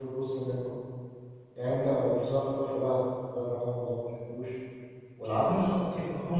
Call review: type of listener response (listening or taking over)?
taking over